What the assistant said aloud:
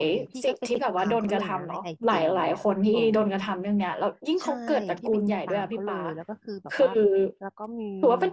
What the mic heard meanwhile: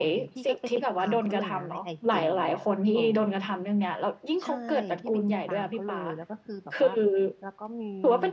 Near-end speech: none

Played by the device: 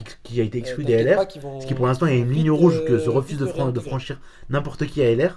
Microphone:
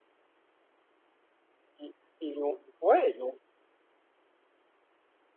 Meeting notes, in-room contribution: present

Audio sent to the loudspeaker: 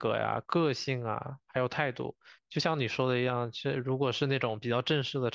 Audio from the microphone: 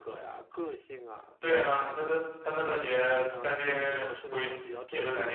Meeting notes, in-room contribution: present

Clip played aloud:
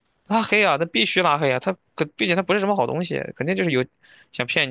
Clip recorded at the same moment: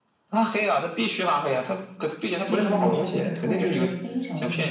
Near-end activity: present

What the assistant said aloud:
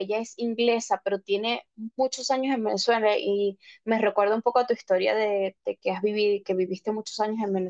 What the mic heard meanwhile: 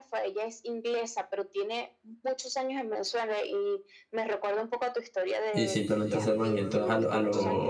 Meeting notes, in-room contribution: present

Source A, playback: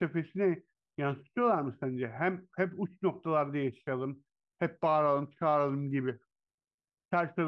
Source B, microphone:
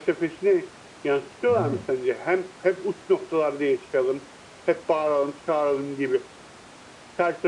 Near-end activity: present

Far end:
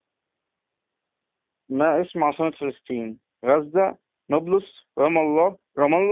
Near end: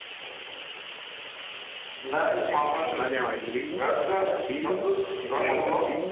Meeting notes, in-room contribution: present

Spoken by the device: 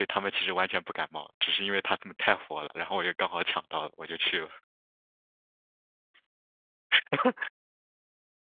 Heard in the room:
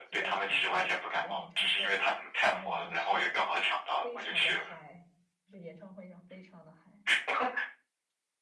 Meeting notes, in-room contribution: present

